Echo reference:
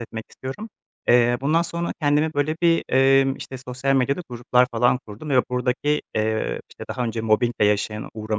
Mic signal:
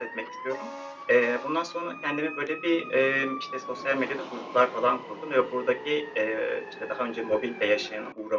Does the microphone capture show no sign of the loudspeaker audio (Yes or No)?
No